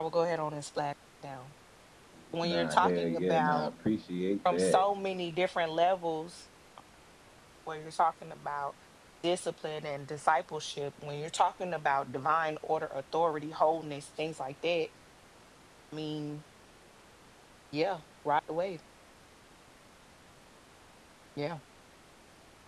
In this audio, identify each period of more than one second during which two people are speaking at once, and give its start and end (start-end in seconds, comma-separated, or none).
2.4-3.7